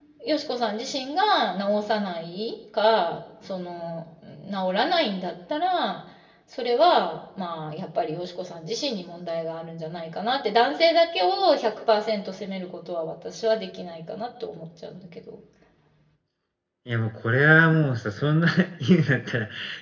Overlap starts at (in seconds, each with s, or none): none